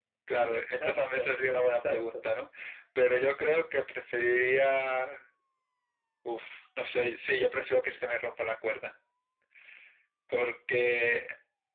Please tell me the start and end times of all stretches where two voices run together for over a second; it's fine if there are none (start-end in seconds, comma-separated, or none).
0.5-2.3